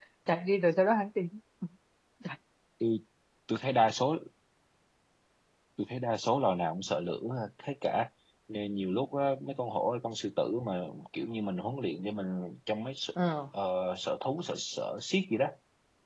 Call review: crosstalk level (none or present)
none